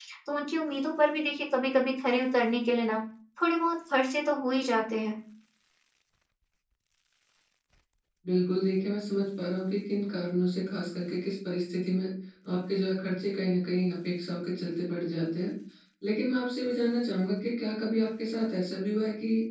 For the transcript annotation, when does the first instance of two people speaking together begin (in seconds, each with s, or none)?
none